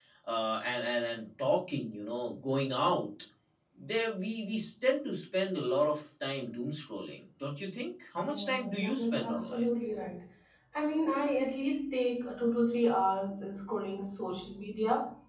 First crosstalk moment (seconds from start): 8.2 s

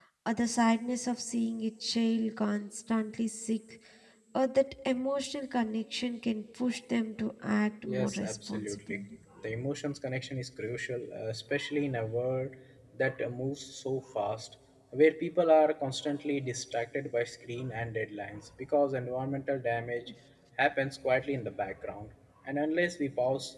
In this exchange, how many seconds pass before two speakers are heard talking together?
7.8 s

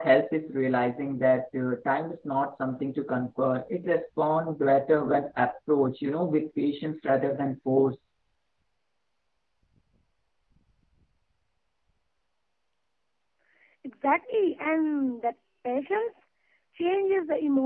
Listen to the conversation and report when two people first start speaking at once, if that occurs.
none

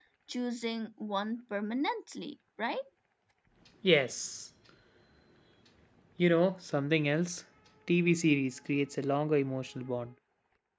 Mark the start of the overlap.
none

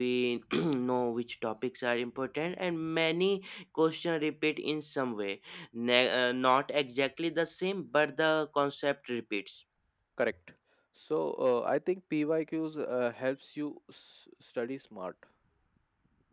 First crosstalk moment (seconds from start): none

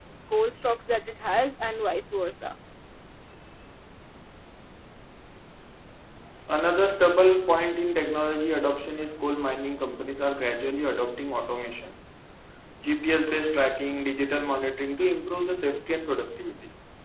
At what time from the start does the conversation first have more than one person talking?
none

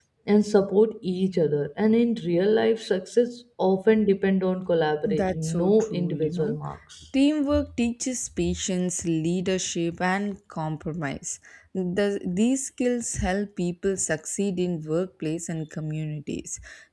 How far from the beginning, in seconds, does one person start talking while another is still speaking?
5.0 s

